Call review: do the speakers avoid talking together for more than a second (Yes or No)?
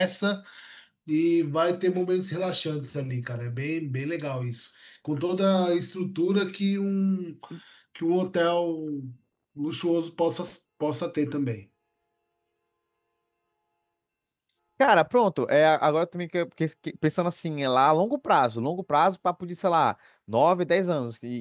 Yes